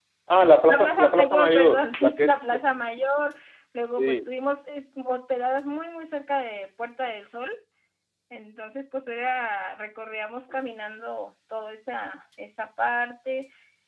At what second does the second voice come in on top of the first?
1 s

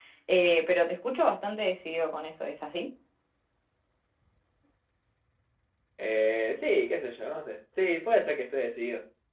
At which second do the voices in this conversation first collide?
none

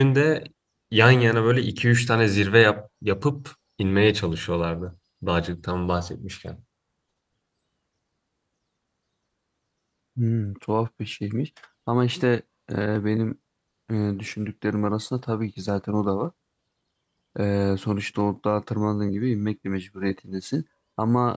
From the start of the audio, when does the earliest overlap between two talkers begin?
none

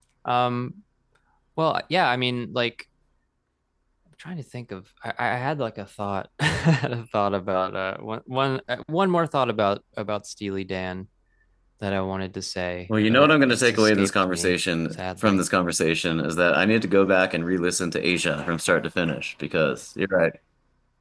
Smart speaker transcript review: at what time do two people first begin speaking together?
13 s

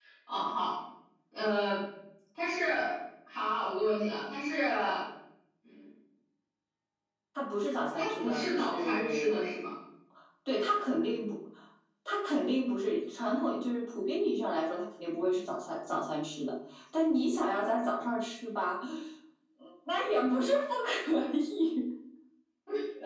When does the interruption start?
8 s

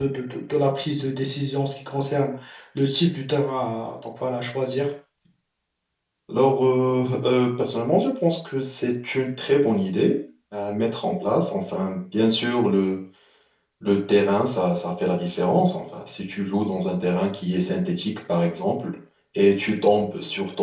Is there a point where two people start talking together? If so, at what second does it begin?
none

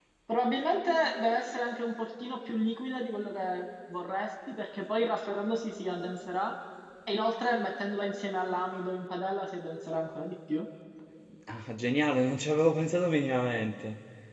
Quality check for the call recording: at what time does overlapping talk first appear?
none

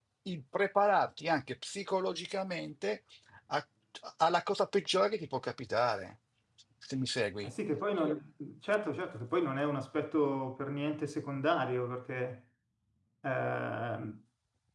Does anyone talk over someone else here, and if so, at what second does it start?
none

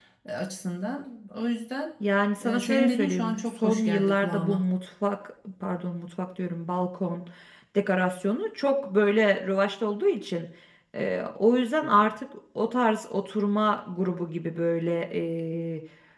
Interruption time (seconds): 2 s

